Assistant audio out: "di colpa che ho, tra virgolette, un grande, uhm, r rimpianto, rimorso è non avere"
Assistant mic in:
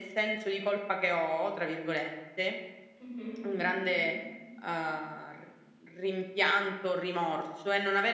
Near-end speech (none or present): present